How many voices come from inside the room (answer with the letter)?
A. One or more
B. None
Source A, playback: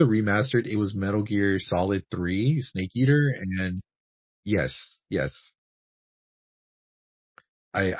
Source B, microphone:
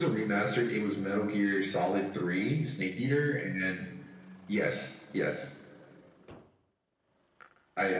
B